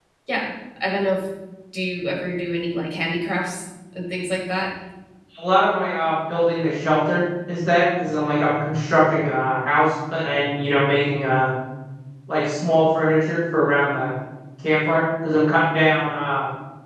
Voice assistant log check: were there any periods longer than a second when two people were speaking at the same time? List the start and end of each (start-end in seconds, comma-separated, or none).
none